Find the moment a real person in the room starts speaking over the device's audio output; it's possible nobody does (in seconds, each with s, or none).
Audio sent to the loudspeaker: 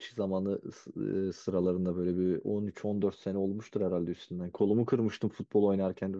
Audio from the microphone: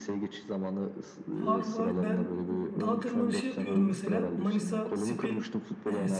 1.2 s